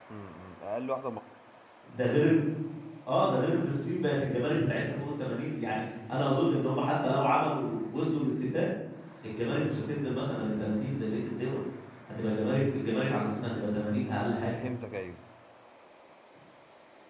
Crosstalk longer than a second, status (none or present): none